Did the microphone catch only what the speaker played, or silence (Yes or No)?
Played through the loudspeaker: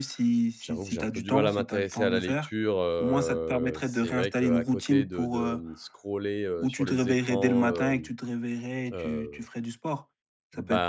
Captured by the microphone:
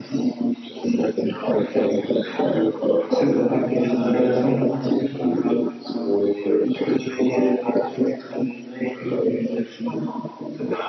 No